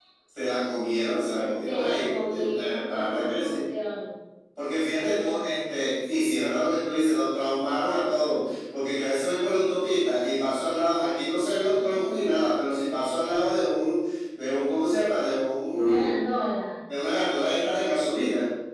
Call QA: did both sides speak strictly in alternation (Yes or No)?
No